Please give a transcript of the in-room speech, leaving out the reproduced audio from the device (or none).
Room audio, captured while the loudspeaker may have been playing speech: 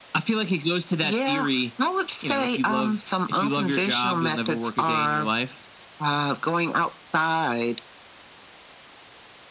none